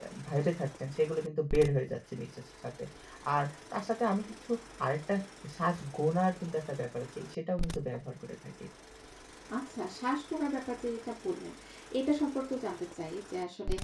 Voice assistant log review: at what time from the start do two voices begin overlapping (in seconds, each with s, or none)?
none